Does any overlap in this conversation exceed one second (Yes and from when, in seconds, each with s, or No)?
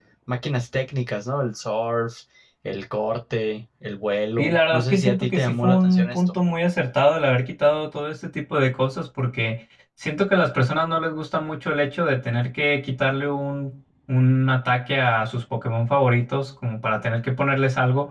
Yes, from 4.4 s